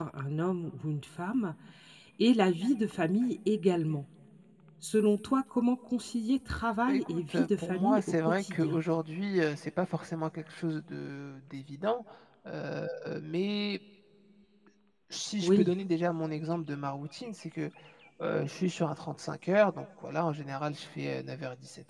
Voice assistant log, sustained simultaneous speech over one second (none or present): present